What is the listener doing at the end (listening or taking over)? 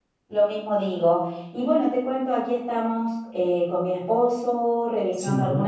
listening